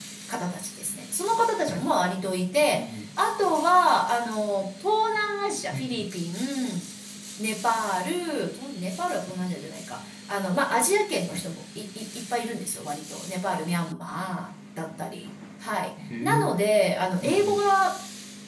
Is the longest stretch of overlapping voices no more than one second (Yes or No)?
Yes